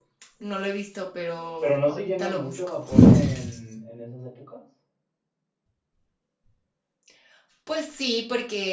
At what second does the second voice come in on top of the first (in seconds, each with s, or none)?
1.6 s